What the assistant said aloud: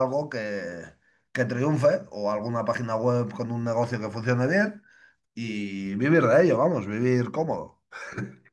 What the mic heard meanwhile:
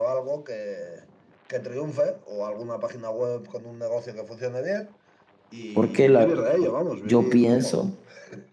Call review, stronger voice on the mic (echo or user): user